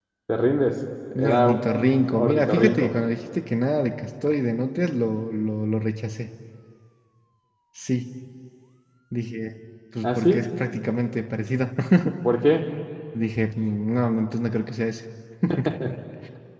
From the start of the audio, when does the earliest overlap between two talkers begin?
1.1 s

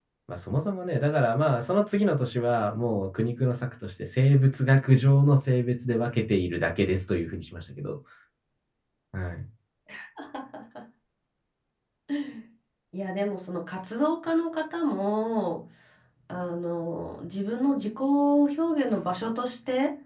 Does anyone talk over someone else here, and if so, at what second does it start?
none

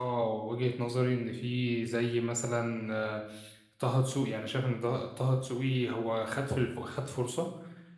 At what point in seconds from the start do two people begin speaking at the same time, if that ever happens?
none

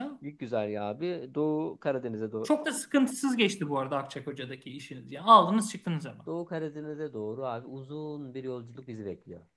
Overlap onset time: none

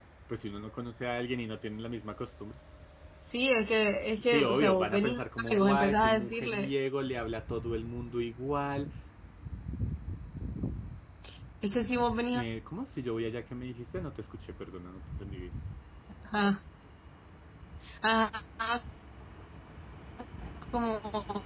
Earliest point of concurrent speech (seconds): 4.3 s

